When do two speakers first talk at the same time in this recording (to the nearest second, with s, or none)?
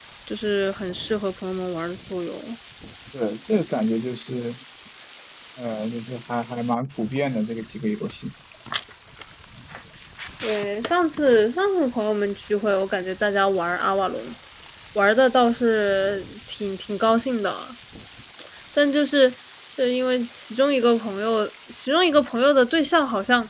none